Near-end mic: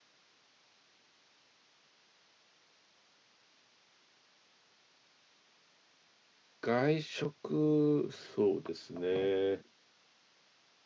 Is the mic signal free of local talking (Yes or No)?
No